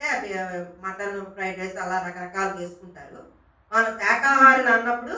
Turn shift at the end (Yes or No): No